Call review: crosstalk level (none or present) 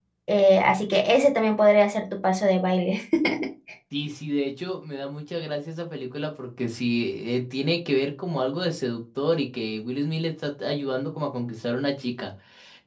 none